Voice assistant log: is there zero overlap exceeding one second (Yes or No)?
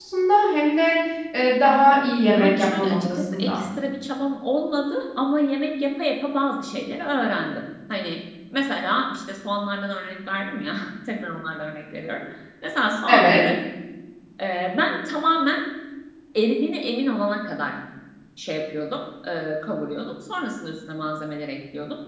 No